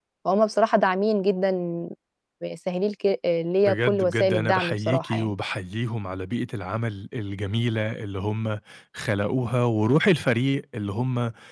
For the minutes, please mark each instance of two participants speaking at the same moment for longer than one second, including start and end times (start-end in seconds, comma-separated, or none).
3.7-5.3